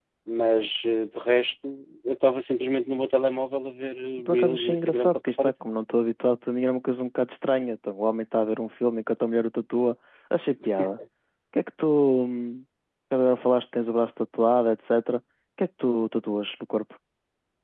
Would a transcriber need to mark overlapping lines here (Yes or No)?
Yes